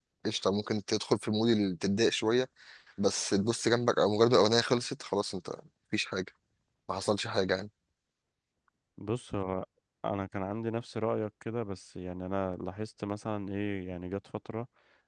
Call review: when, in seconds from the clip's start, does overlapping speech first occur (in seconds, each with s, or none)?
none